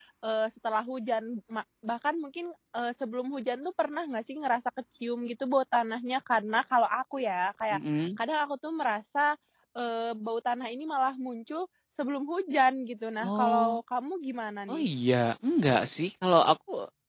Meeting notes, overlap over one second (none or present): none